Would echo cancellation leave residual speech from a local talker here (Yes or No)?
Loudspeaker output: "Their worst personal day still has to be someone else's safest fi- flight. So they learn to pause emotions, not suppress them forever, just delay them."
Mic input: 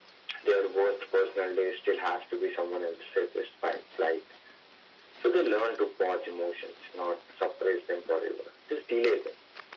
No